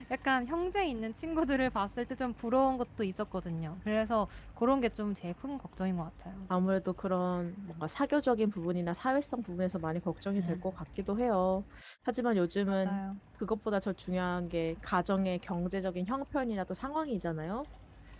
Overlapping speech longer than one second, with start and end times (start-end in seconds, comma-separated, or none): none